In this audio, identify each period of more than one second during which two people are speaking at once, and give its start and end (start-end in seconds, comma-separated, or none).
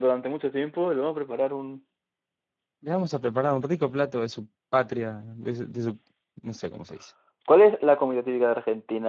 none